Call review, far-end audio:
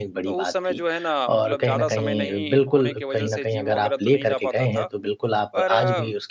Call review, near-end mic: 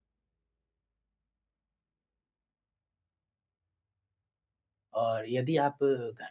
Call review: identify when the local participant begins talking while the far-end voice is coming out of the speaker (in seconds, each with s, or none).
5.0 s